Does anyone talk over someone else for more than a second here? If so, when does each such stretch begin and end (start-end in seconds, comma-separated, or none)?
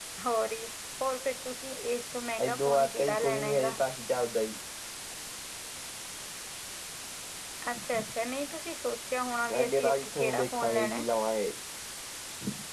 2.5-3.8, 9.6-11.1